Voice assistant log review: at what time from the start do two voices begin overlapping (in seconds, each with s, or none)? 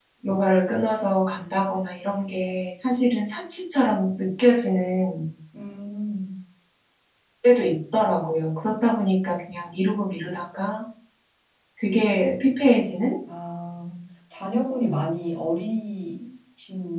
none